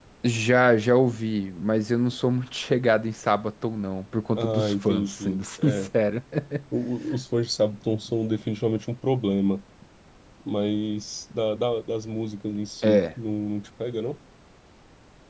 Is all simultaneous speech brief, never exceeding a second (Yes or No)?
No